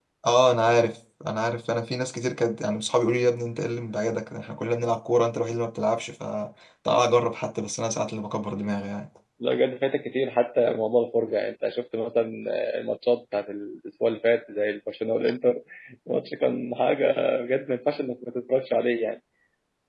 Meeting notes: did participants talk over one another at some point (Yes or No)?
No